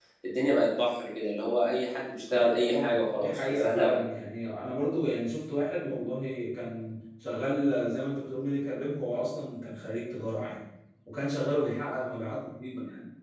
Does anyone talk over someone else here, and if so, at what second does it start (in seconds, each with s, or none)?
2.6 s